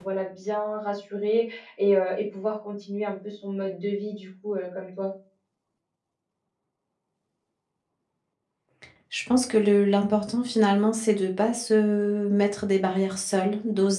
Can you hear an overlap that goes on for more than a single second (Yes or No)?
No